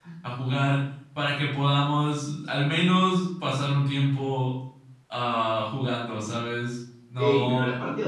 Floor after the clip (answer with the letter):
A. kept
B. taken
B